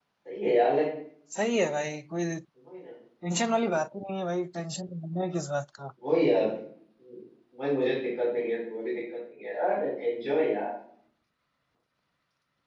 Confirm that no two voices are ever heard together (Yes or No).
Yes